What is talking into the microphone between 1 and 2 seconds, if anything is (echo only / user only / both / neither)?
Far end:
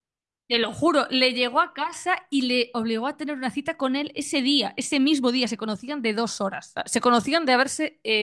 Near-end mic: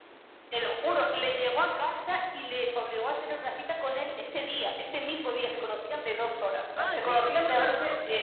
echo only